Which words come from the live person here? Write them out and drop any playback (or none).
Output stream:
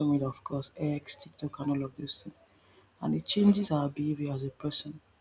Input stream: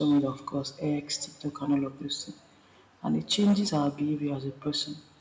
none